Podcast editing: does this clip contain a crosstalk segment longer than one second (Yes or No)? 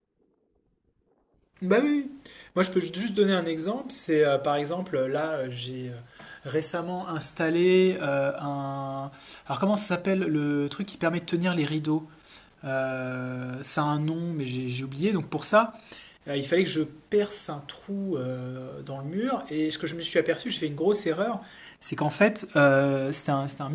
No